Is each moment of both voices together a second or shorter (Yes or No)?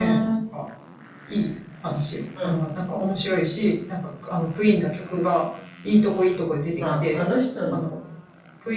Yes